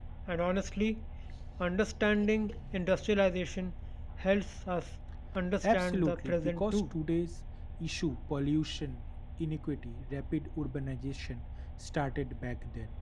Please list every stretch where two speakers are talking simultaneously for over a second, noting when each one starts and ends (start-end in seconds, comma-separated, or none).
5.6-6.9